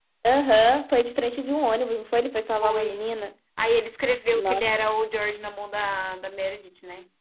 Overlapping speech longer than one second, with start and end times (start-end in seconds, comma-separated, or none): none